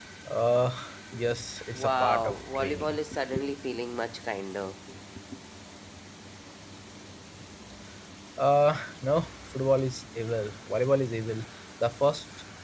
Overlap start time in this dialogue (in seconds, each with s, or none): 1.8 s